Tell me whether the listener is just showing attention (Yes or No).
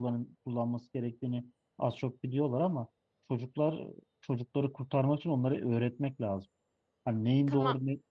Yes